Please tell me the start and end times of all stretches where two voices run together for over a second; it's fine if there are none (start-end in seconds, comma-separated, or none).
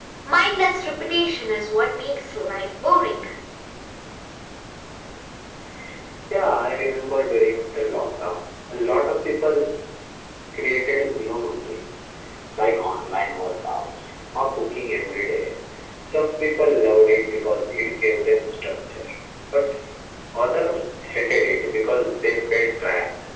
none